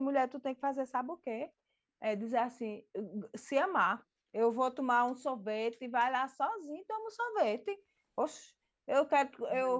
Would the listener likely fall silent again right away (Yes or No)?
Yes